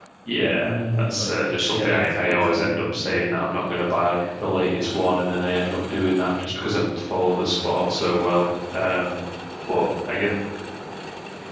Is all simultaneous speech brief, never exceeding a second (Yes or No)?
No